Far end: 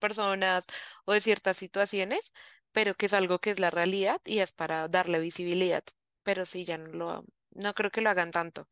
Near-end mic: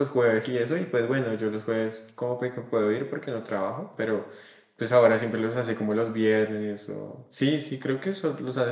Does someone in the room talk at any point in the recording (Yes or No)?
Yes